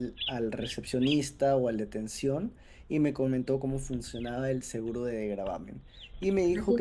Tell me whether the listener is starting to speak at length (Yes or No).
No